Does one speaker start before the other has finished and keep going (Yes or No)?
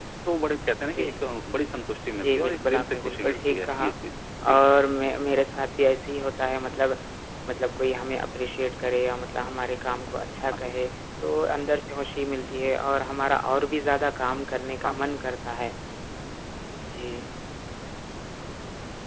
Yes